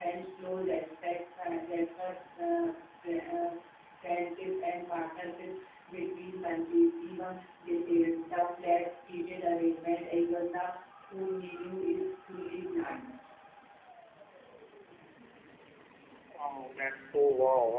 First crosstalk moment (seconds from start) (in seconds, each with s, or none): none